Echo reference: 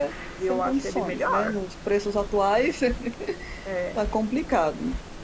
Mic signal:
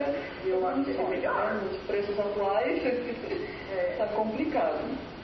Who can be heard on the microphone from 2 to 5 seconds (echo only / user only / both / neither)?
echo only